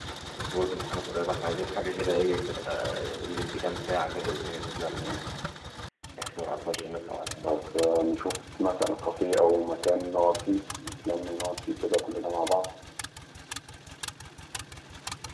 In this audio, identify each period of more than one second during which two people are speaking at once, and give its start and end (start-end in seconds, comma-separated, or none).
none